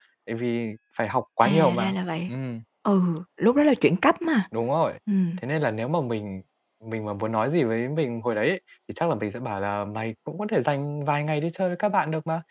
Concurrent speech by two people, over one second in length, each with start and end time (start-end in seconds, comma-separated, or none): none